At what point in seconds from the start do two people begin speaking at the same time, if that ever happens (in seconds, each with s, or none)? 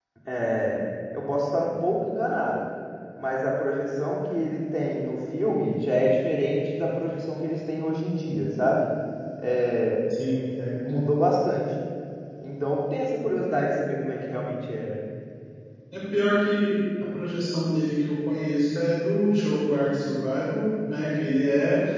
none